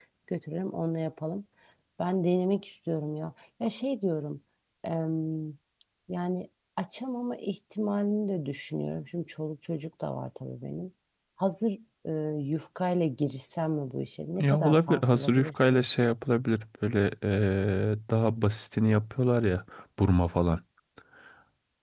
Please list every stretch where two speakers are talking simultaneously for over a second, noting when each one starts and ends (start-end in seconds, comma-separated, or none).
14.4-15.9